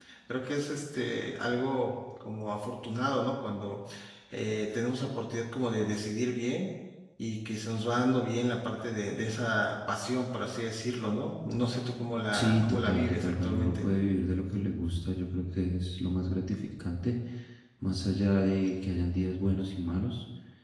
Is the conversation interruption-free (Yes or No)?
No